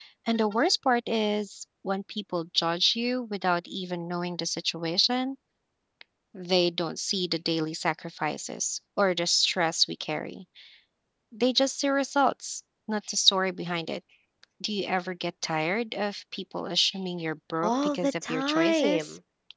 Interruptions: present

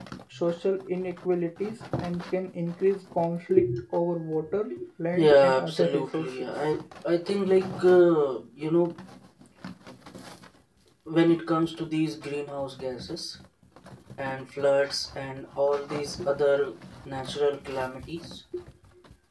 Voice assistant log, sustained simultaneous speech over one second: present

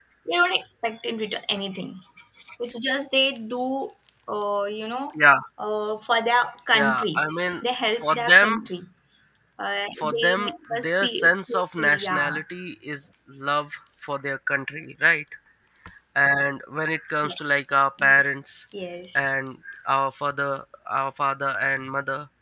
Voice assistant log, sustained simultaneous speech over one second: present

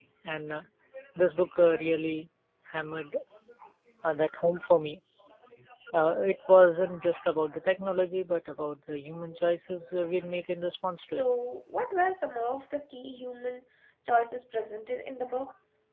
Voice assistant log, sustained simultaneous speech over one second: none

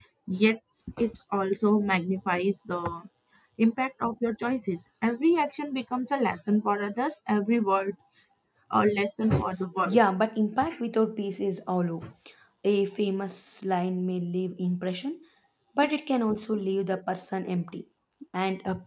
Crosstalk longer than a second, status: none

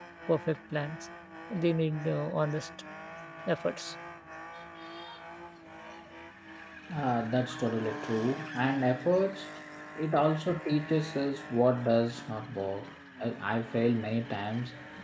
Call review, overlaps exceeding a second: none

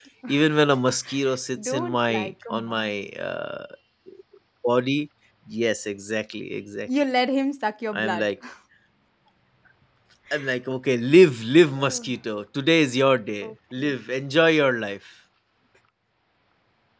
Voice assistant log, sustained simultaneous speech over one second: present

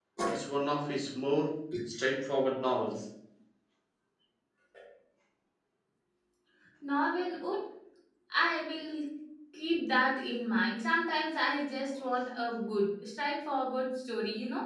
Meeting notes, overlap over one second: none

